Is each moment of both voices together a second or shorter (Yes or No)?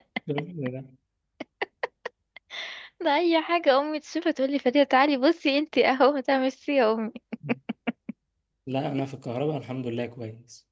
Yes